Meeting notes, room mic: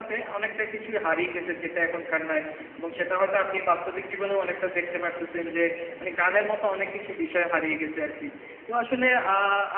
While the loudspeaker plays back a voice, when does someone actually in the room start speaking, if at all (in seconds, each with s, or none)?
none